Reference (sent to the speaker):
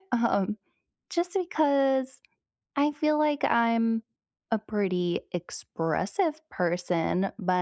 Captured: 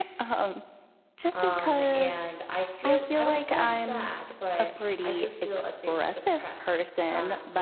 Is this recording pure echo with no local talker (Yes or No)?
No